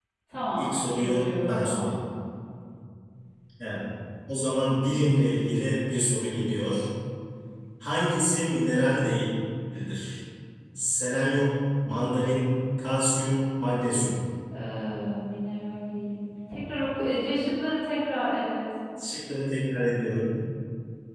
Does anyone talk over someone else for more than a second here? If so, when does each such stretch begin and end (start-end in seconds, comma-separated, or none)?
0.6-1.9